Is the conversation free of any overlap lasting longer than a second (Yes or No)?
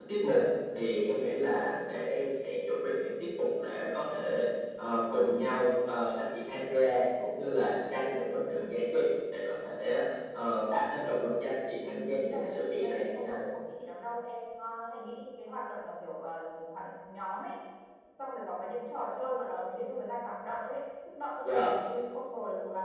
No